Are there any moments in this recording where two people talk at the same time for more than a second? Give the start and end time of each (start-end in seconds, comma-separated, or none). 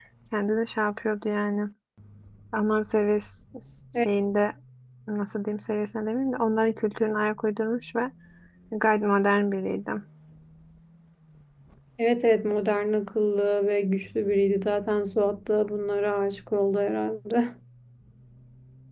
none